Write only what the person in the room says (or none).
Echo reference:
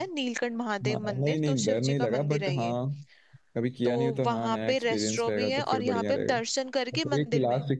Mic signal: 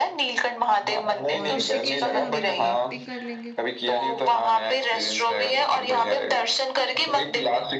और ऋषिकेश में हम लोग राफ्टिंग कर लेंगे